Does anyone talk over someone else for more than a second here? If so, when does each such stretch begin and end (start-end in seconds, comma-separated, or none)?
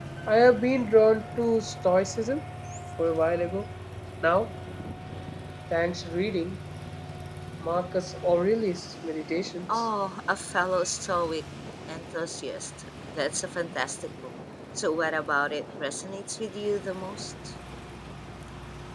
none